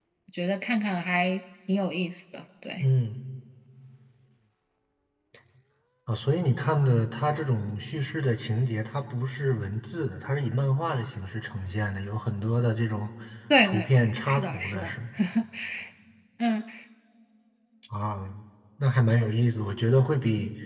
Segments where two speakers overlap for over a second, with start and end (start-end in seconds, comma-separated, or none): 13.6-14.9